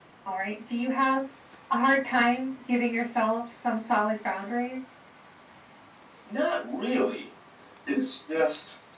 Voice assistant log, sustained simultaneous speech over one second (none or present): none